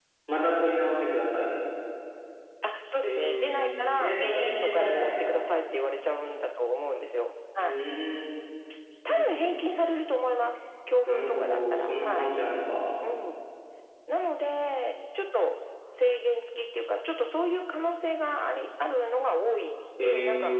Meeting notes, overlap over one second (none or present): present